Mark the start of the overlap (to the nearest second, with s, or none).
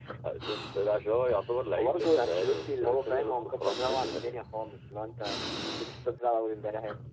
2 s